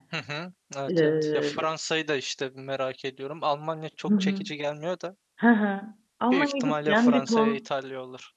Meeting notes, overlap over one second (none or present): present